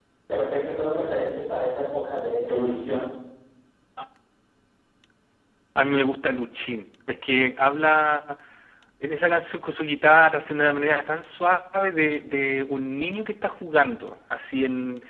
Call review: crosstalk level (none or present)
none